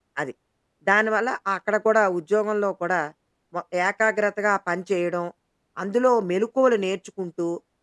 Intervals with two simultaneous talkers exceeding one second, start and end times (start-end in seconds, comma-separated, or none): none